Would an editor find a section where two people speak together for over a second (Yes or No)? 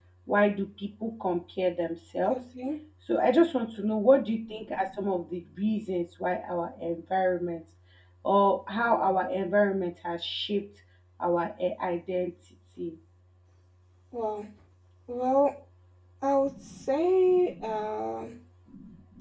No